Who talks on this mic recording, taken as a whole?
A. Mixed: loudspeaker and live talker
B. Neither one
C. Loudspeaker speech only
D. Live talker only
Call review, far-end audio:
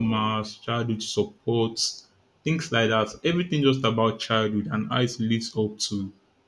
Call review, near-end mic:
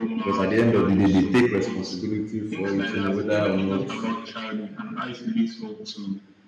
A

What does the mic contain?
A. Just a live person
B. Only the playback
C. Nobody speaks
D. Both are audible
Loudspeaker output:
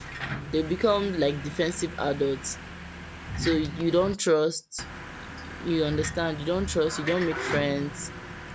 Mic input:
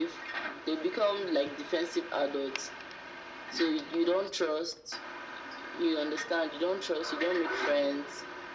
B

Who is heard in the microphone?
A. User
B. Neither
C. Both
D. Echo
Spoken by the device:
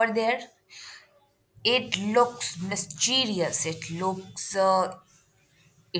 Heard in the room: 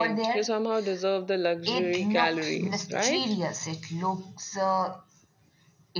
C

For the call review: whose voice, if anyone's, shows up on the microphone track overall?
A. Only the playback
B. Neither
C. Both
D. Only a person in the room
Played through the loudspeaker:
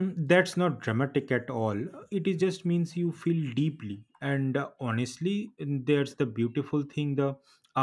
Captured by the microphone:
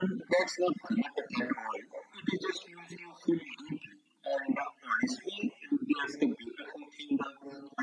A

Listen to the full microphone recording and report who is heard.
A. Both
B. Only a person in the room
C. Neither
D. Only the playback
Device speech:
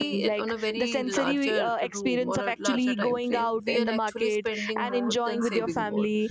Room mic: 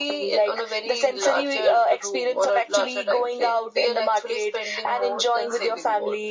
D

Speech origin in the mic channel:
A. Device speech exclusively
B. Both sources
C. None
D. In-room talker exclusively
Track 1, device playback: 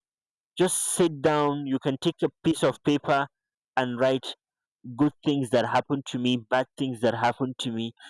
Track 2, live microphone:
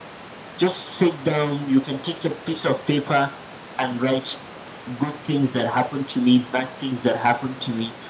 A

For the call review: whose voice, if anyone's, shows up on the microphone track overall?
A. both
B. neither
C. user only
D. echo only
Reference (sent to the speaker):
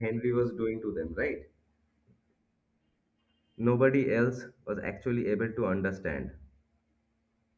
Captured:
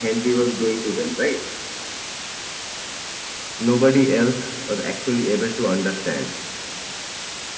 D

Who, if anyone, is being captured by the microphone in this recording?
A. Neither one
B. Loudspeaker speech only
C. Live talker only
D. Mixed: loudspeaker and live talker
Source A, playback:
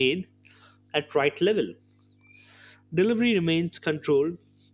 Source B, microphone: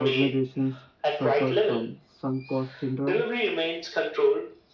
D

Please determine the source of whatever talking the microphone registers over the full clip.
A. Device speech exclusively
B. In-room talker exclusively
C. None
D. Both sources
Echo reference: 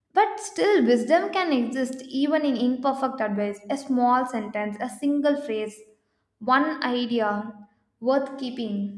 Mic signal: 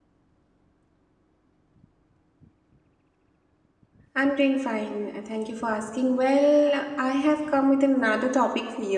B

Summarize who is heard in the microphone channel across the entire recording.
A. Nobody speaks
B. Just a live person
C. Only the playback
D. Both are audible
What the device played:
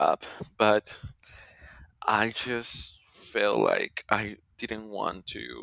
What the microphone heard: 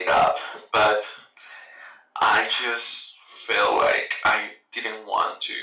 C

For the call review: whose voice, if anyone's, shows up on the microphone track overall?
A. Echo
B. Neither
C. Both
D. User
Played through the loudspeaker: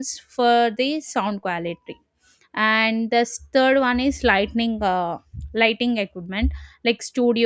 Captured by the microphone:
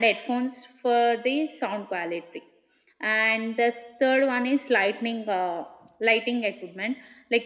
A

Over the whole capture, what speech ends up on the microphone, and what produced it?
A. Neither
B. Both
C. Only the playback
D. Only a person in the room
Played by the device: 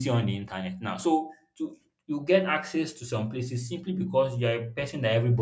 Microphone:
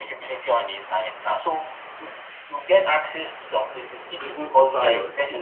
B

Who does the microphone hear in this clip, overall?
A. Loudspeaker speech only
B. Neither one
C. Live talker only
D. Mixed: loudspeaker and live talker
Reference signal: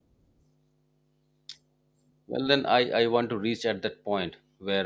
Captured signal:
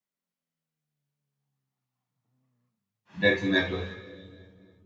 C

